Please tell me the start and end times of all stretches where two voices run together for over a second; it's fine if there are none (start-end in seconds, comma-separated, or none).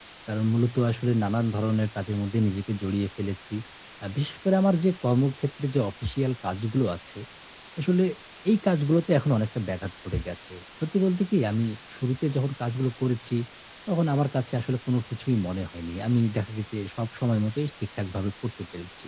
none